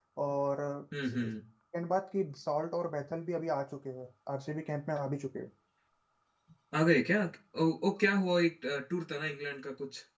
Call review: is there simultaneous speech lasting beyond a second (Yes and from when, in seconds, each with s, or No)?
No